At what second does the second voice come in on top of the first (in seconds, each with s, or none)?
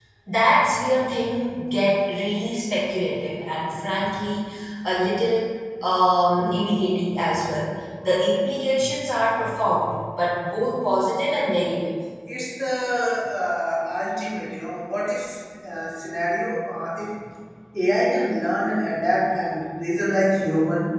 none